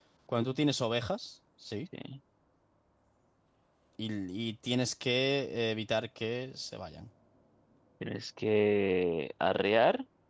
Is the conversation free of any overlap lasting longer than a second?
Yes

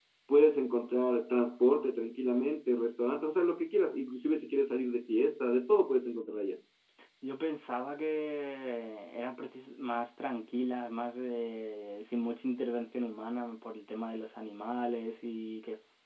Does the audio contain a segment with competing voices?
No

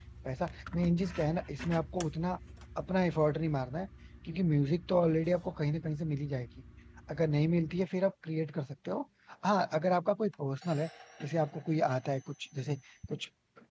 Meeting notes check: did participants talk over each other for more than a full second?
No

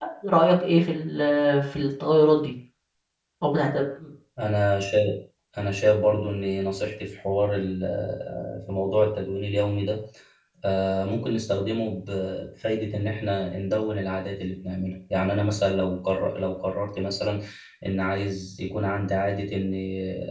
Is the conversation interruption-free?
Yes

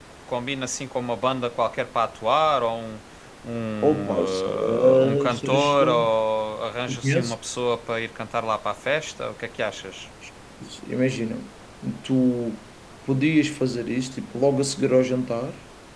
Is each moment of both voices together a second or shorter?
No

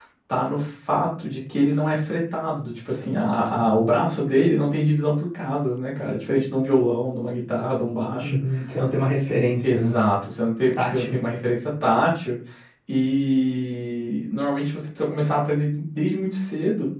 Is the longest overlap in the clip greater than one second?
No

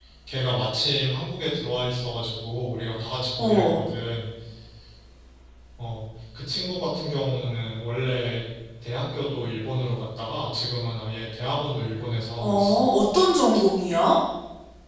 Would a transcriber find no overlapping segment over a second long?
Yes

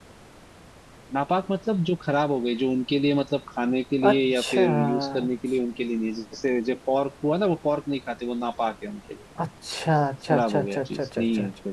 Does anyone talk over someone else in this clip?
Yes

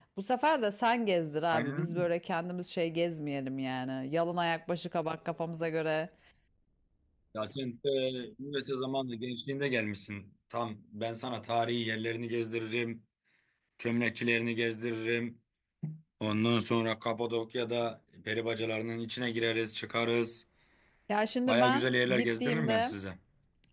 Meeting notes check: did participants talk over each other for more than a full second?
Yes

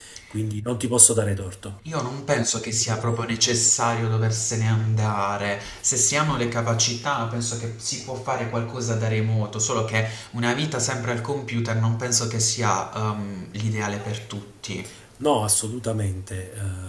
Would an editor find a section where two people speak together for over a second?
No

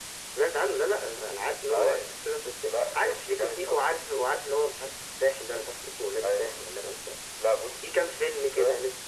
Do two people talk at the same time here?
Yes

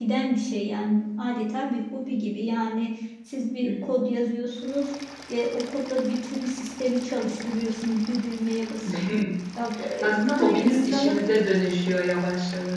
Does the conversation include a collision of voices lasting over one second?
Yes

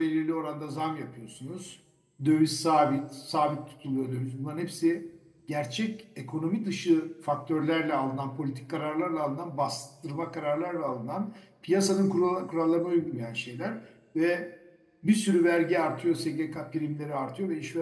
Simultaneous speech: No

